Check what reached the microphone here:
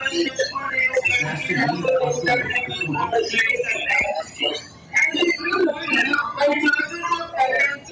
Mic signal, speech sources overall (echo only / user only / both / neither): both